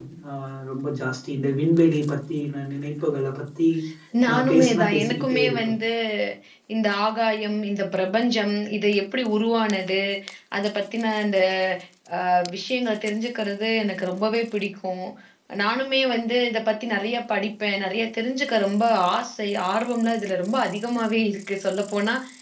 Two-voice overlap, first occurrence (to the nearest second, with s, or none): 4 s